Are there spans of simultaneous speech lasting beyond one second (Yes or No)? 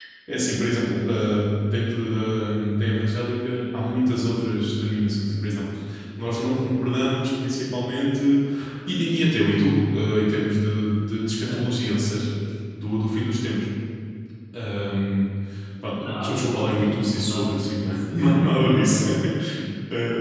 Yes